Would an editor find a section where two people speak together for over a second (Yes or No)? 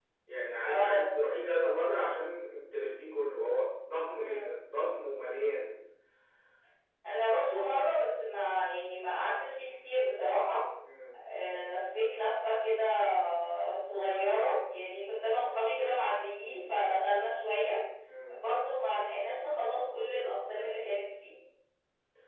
No